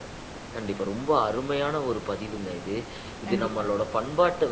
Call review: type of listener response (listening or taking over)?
listening